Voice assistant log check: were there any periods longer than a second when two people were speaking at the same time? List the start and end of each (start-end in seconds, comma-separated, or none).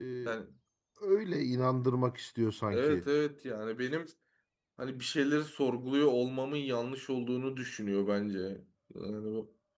none